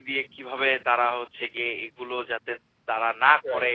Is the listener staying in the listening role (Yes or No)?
Yes